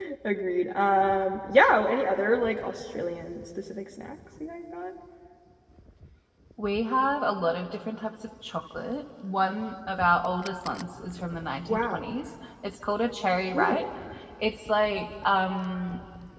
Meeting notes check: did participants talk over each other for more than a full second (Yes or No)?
No